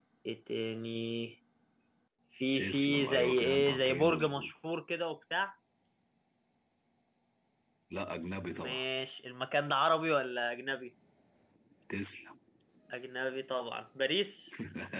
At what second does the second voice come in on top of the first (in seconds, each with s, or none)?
2.5 s